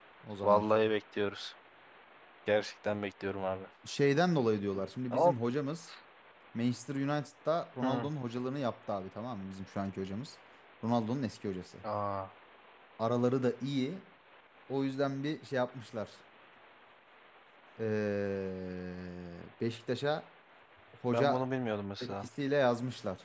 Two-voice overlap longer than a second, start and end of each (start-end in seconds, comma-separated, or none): none